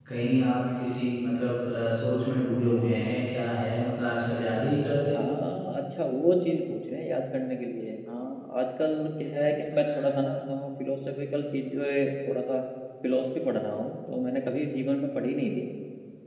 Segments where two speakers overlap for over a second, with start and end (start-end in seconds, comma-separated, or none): none